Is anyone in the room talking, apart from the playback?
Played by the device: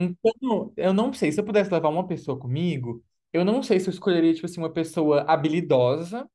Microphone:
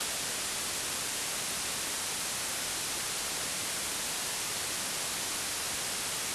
No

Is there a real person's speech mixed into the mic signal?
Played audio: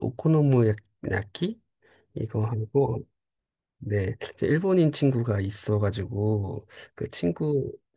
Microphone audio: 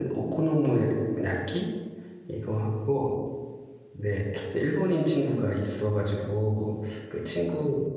No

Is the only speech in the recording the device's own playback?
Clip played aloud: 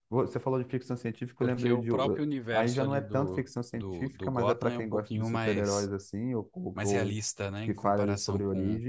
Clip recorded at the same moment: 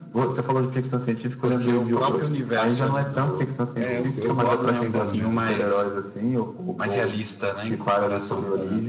No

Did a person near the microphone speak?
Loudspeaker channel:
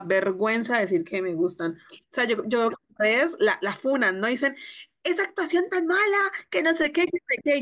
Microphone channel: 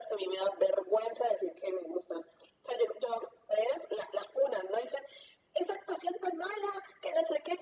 No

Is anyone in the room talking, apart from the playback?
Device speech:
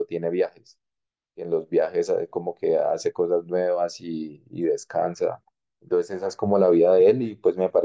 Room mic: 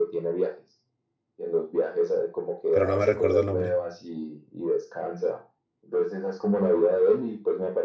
Yes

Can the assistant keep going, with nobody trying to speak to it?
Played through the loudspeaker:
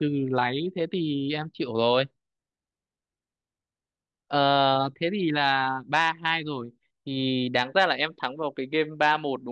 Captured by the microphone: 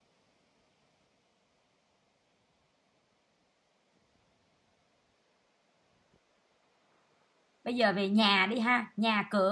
No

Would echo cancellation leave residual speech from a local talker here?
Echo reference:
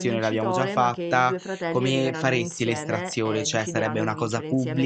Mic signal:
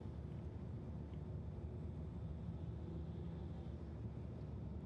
No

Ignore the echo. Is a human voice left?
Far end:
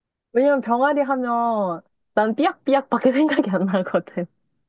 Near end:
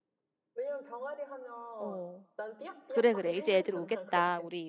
Yes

